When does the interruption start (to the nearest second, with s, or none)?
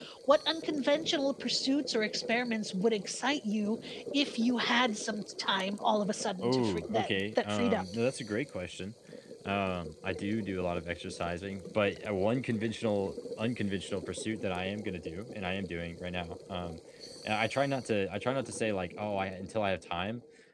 6 s